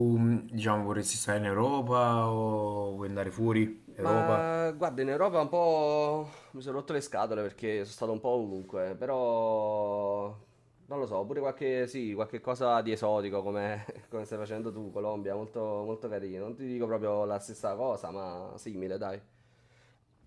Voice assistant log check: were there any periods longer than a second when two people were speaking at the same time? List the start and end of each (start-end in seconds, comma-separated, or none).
none